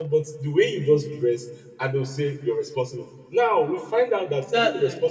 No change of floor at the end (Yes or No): Yes